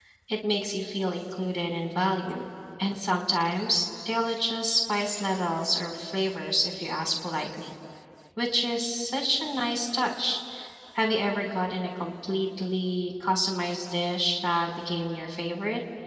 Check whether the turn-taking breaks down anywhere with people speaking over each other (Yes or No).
No